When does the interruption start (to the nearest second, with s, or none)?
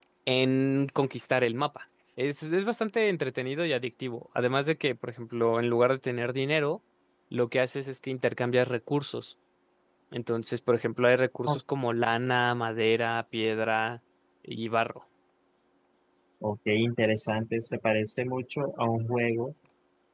none